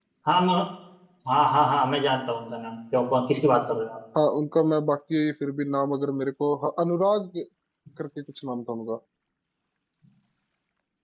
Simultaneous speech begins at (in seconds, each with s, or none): none